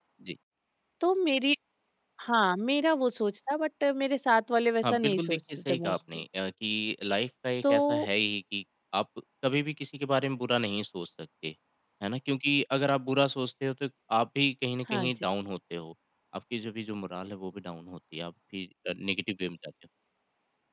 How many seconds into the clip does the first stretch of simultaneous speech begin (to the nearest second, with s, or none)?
5 s